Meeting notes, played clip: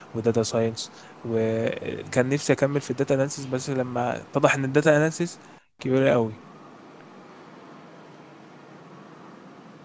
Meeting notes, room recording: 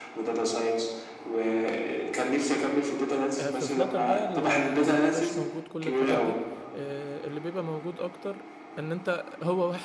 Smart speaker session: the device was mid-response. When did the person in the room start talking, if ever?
3.4 s

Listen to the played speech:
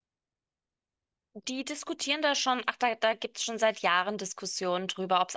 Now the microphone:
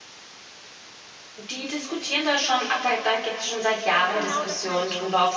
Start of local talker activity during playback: 3.9 s

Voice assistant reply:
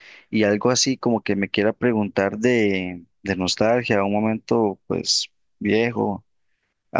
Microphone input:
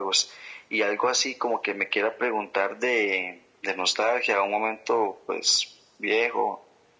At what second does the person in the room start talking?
none

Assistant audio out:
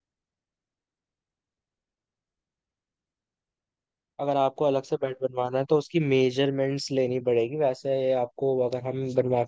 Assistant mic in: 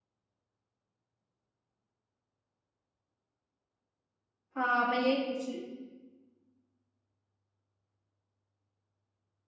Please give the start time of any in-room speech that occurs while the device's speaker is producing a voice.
4.6 s

